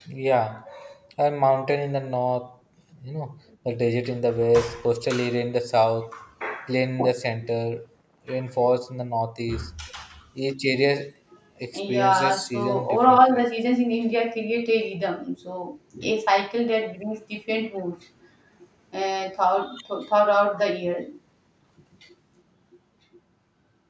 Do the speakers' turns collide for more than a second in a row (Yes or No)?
Yes